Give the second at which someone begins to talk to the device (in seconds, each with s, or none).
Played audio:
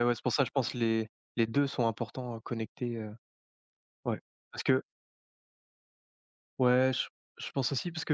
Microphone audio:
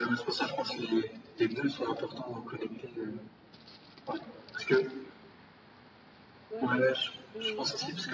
6.5 s